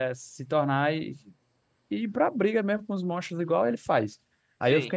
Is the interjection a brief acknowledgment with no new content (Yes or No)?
Yes